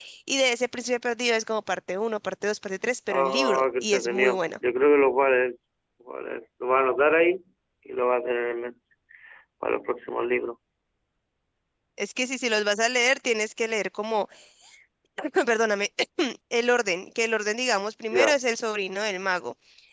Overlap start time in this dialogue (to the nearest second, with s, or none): 3 s